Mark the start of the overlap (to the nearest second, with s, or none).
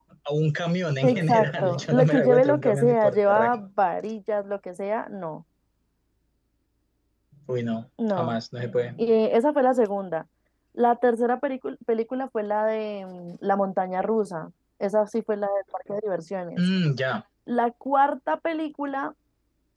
1 s